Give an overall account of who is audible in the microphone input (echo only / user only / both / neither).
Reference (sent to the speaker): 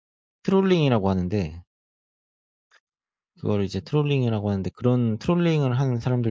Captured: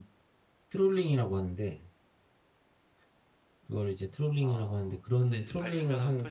both